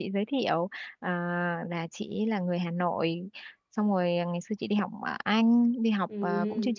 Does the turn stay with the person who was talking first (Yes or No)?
Yes